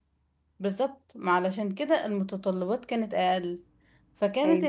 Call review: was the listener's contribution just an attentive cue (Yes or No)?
Yes